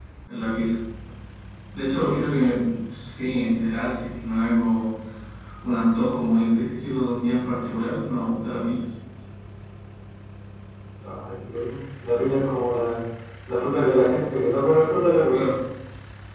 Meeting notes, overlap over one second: none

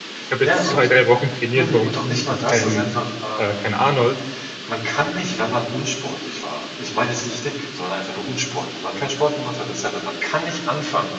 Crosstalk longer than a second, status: present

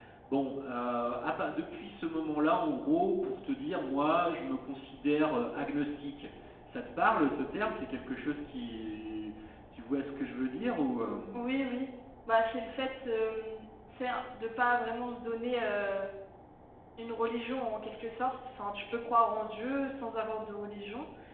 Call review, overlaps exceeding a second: none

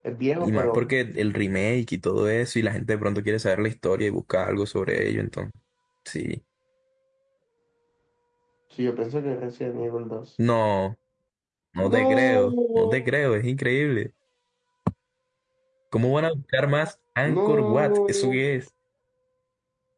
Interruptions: present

